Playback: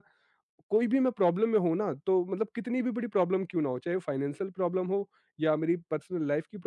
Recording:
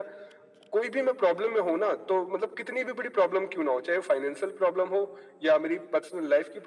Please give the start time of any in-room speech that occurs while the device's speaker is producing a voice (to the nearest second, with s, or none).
none